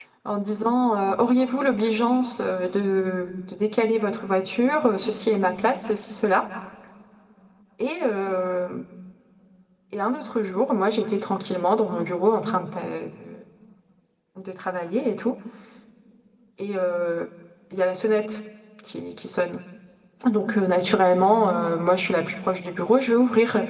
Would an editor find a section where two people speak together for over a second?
No

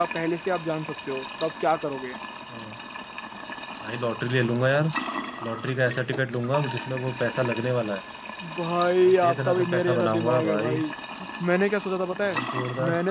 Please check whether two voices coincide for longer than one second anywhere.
Yes, from 9.0 s

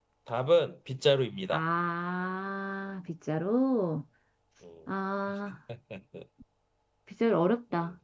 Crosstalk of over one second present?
No

